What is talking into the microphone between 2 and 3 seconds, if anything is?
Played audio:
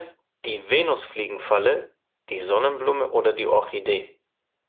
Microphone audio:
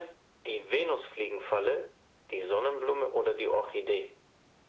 echo only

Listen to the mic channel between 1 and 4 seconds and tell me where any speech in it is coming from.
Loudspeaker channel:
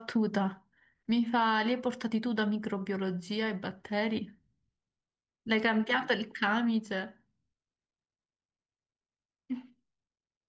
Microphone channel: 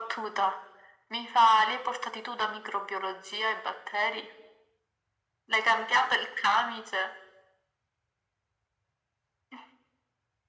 echo only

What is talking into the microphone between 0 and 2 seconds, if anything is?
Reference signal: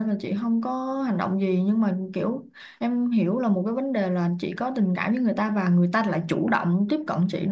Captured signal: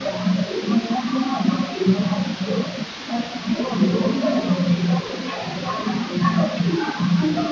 echo only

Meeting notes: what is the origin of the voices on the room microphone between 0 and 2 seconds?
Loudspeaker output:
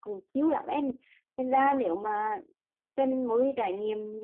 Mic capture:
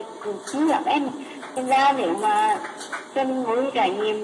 echo only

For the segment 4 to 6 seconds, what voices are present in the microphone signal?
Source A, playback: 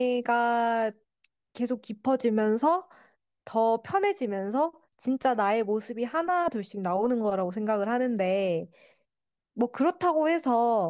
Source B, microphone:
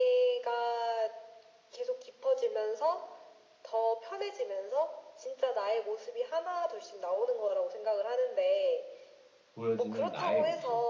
echo only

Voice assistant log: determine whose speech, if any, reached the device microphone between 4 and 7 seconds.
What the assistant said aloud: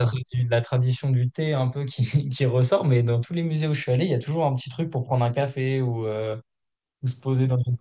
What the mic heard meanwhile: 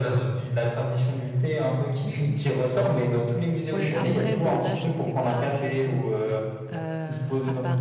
both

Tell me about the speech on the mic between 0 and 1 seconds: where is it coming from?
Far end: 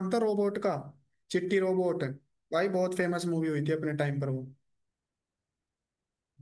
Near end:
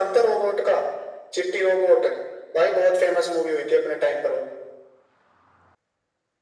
echo only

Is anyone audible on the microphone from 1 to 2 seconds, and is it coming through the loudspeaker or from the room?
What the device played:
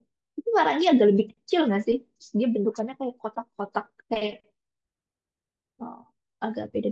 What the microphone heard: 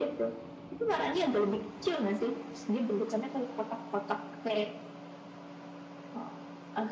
echo only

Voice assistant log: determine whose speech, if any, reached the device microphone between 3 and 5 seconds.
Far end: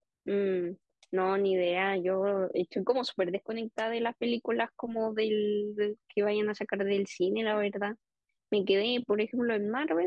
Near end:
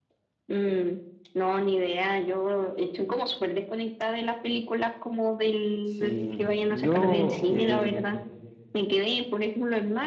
echo only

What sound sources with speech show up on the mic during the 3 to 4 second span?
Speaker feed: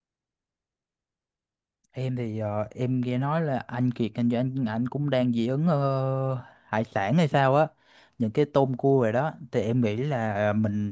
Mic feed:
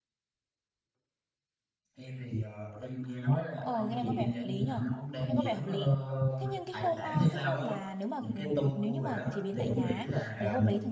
both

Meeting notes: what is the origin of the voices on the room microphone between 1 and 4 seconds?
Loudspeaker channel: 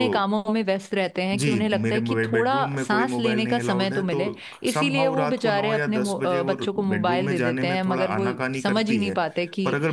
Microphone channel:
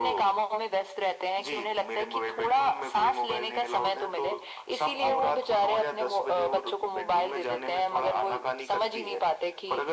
echo only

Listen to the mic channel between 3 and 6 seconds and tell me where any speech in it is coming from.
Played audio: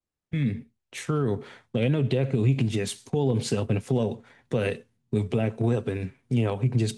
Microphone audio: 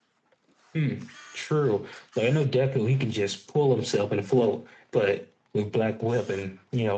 echo only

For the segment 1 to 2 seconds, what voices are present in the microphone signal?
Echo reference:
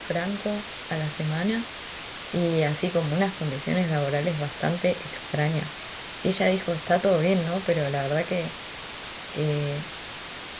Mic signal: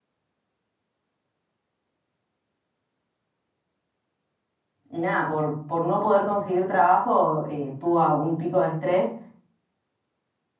neither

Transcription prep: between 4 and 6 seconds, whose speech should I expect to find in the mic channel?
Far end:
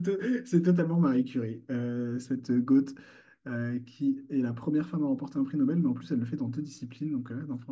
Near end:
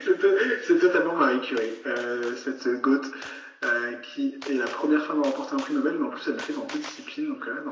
echo only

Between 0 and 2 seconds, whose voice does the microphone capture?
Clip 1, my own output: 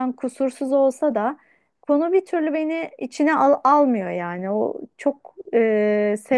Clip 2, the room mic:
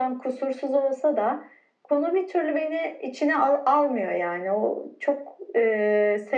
echo only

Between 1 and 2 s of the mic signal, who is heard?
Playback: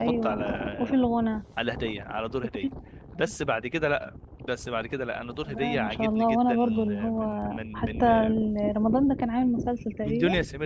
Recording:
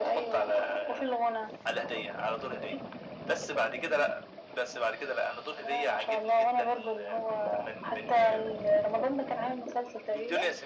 echo only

